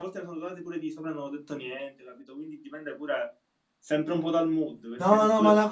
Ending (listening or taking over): taking over